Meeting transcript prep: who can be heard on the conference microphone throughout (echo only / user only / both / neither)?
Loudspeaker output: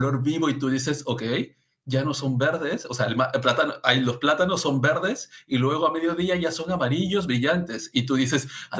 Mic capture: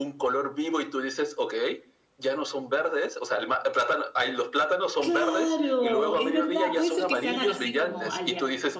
both